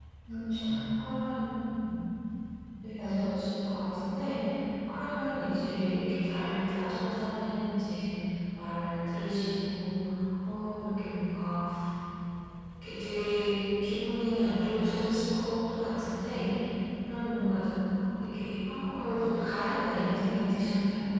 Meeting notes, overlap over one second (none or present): none